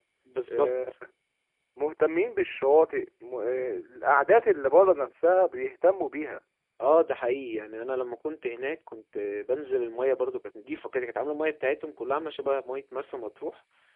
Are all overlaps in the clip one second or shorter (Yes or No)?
Yes